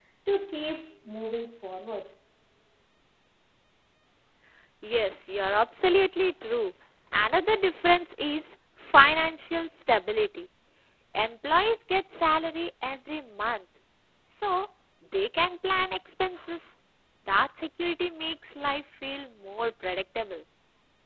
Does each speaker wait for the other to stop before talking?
Yes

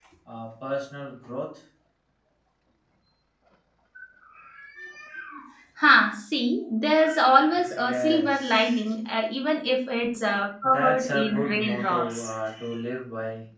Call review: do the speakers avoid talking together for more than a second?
No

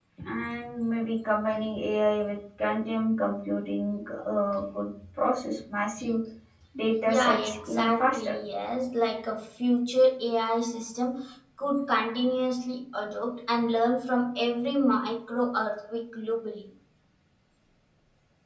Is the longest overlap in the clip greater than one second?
Yes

